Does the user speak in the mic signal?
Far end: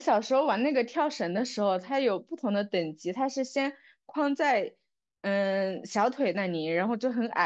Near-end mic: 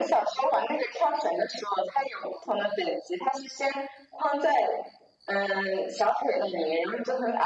No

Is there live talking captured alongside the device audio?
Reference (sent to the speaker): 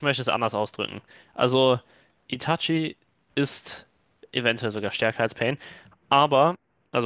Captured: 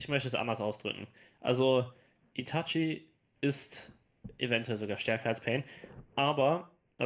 No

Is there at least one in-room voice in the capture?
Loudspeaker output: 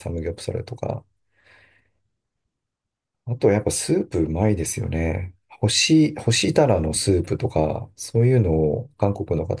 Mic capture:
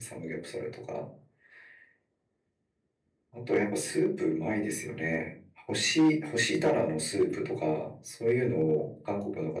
No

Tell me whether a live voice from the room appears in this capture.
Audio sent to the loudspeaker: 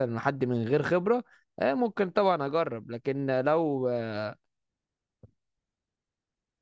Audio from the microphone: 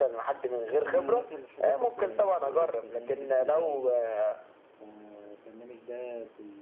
Yes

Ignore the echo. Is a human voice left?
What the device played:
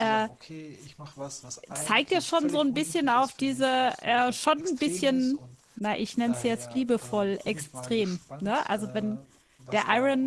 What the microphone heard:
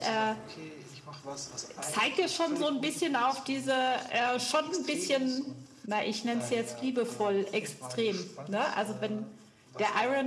No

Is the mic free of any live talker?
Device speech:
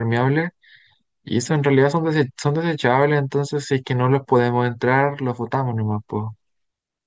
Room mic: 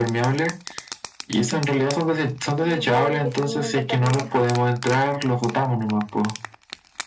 No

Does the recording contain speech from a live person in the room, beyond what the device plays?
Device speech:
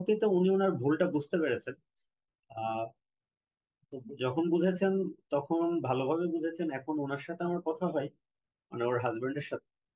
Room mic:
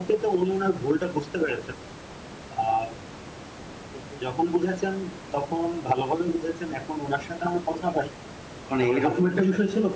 Yes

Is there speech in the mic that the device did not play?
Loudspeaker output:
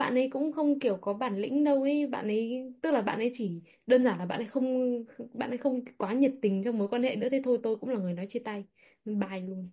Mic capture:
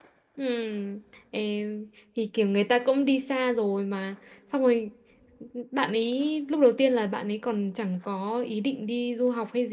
Yes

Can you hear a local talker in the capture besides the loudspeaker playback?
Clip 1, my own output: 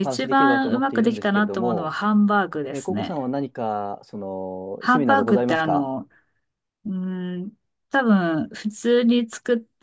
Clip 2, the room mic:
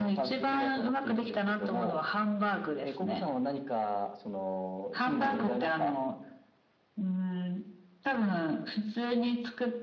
No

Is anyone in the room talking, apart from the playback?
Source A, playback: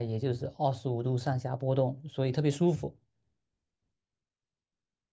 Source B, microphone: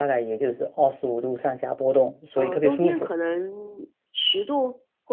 Yes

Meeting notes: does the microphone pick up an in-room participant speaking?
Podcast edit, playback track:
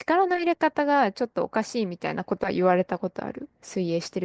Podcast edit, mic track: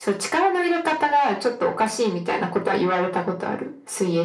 No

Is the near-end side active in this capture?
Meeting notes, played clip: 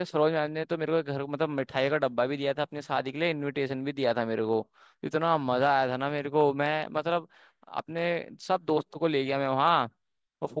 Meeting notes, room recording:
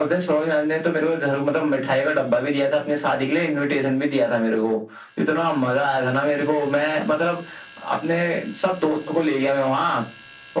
No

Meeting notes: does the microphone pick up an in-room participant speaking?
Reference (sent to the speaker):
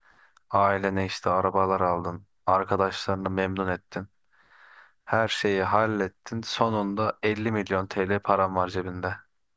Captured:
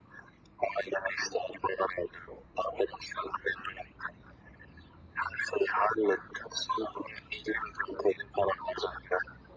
No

